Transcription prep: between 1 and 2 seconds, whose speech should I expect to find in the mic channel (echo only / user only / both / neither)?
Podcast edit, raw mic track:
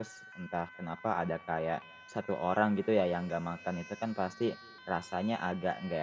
user only